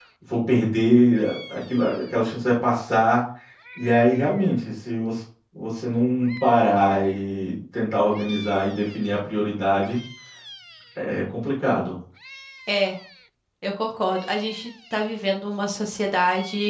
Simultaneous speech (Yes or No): No